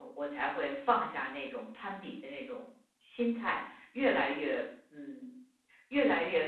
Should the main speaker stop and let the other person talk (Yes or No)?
No